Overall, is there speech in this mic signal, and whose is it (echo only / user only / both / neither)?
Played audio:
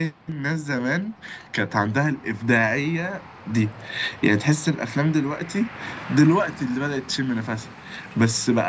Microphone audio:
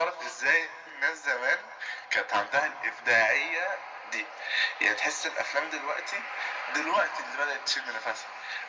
echo only